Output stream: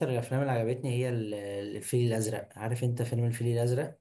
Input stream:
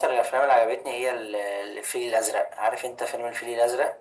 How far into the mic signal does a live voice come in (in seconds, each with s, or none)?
none